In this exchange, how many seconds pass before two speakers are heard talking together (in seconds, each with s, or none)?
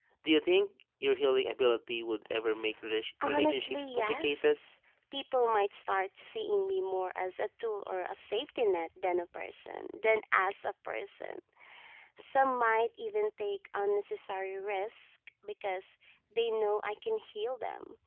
3.2 s